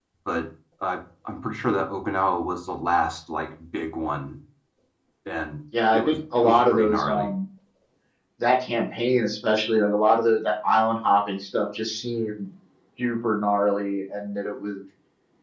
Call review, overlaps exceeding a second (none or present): present